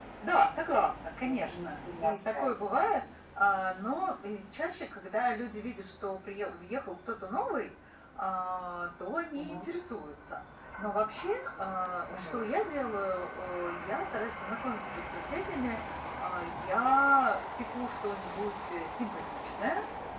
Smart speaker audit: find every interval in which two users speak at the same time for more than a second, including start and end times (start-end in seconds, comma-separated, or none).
1.2-2.5